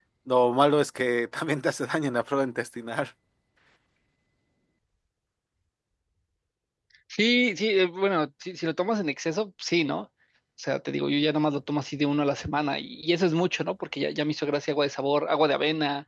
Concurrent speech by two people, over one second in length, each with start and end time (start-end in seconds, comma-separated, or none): none